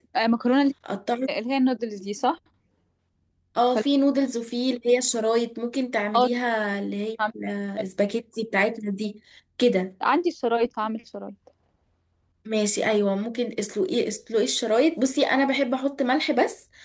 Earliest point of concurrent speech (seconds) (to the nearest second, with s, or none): none